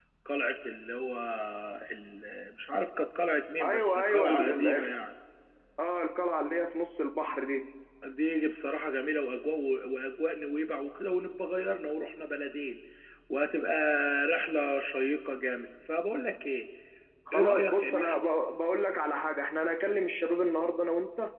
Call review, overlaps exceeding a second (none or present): present